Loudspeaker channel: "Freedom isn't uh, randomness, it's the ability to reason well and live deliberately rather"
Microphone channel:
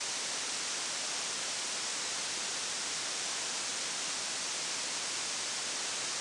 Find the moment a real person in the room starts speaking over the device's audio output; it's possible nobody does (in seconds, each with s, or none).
none